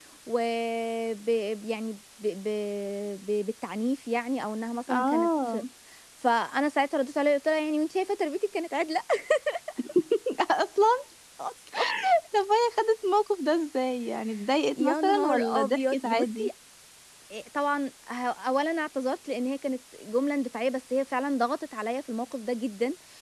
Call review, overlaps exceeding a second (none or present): present